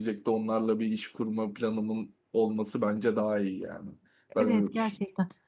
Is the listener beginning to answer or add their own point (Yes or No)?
Yes